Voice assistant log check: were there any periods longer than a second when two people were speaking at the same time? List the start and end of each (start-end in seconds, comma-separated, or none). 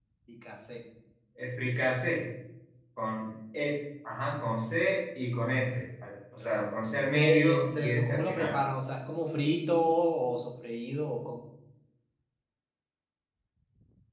7.1-8.6